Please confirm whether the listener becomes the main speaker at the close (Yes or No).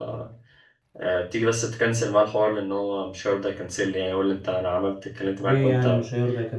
Yes